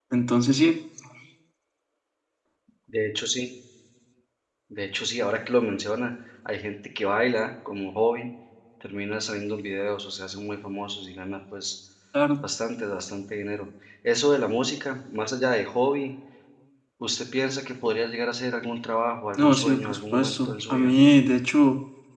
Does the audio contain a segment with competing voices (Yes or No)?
Yes